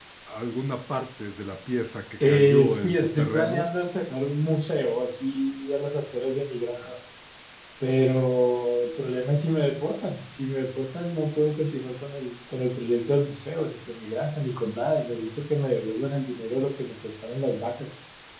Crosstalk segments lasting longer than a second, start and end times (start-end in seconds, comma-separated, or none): 2.3-3.7